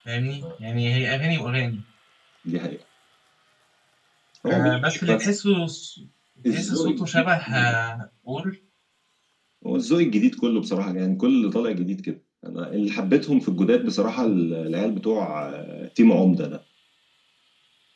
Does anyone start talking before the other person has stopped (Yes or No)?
Yes